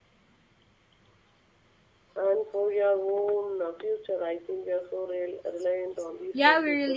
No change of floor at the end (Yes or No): No